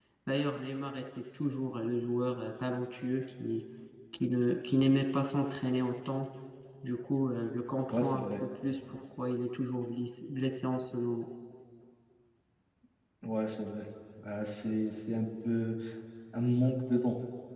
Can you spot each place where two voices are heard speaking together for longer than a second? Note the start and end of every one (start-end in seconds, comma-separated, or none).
none